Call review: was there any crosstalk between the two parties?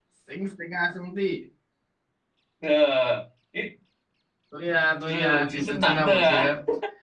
Yes, from 5.1 s

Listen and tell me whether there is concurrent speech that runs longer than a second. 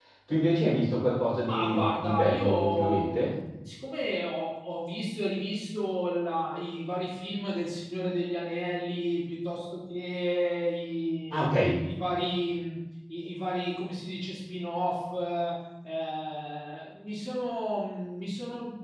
Yes, from 1.5 s

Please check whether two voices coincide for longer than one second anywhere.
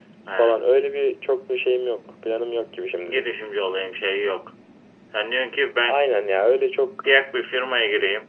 No

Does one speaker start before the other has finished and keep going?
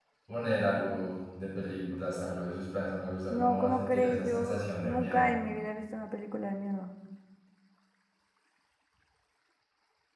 Yes, from 3.3 s

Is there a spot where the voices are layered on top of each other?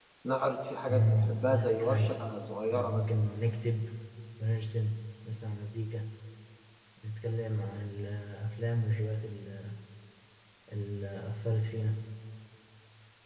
Yes, from 0.9 s

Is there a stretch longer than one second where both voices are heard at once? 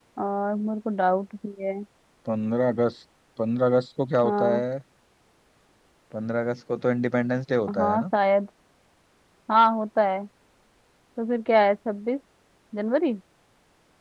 No

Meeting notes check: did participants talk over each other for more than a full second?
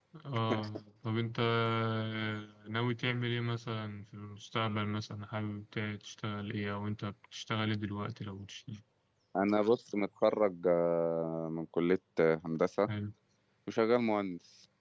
No

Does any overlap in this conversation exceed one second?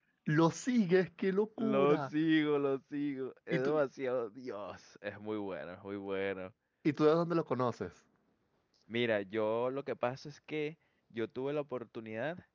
No

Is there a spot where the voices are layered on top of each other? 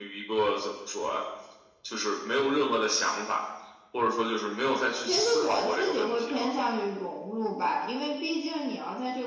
Yes, from 5.0 s

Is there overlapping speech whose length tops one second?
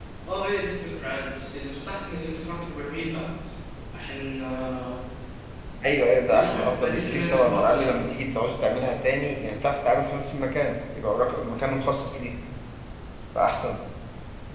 Yes, from 6.3 s

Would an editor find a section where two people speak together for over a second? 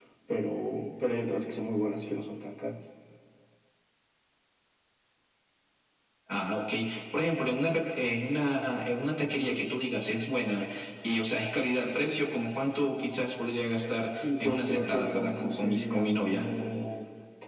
Yes, from 14.2 s

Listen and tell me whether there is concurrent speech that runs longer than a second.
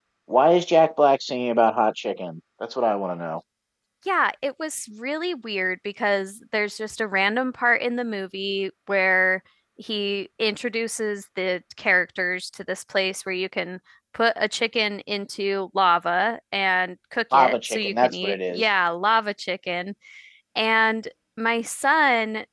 Yes, from 17.3 s

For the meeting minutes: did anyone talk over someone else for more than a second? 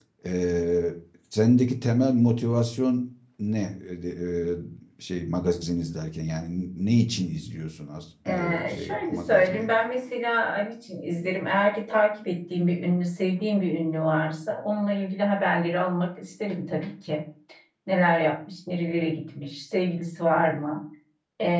Yes, from 8.2 s

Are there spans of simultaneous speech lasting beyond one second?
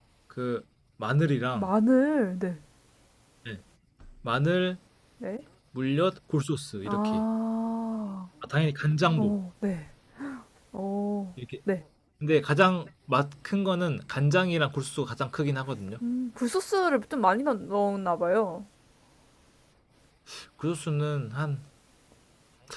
No

